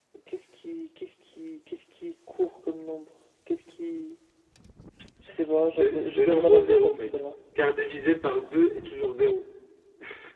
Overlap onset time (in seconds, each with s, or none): 5.7 s